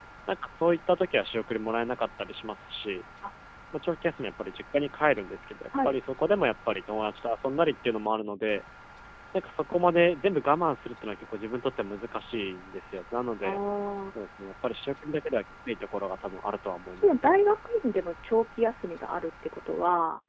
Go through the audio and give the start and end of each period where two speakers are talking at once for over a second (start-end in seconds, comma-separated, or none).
none